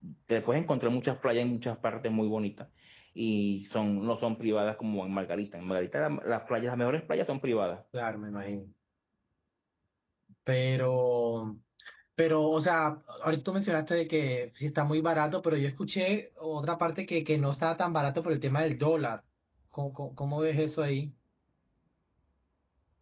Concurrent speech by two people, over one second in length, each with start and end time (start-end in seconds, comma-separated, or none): none